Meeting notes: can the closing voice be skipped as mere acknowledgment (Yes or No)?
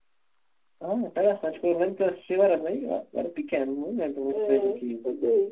No